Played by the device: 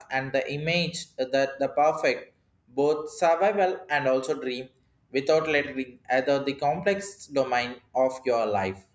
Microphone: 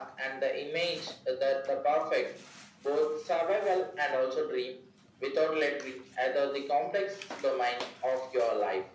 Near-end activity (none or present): none